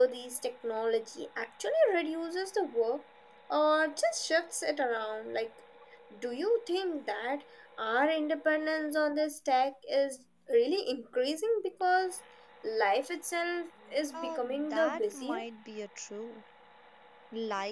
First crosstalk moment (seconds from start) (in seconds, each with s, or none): 14.1 s